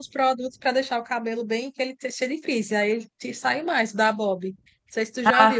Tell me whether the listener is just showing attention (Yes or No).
Yes